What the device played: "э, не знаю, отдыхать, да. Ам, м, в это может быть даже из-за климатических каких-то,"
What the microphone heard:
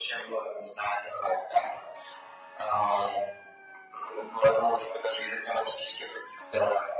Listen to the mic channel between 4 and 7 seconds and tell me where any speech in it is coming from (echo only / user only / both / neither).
echo only